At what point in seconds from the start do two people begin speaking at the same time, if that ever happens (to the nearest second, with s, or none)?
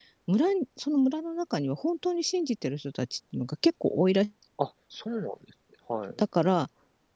none